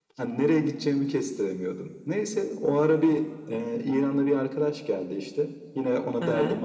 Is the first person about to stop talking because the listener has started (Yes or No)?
No